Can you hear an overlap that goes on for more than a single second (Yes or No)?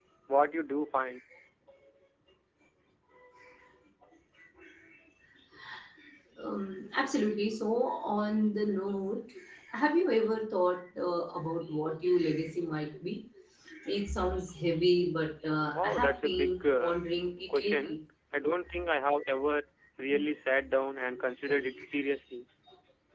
Yes